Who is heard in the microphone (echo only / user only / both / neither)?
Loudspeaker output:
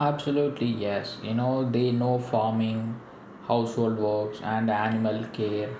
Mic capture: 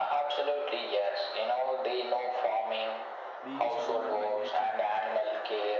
both